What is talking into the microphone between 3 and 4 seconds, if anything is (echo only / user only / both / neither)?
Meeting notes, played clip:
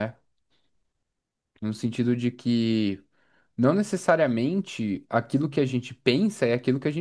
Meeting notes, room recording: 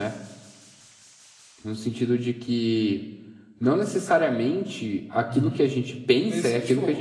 echo only